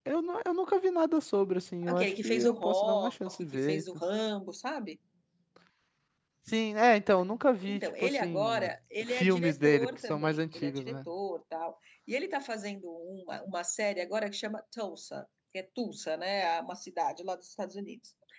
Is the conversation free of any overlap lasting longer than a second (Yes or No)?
No